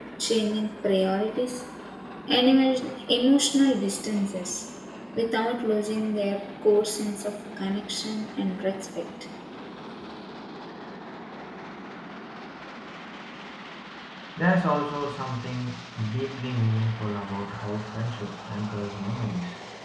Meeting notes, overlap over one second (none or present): none